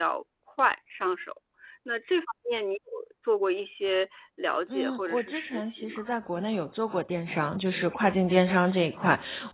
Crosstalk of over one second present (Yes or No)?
Yes